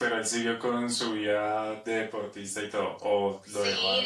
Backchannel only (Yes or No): No